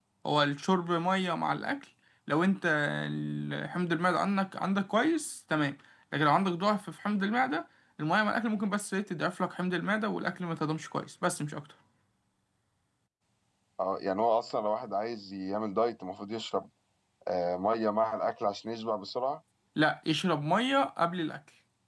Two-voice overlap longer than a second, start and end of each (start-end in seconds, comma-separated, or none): none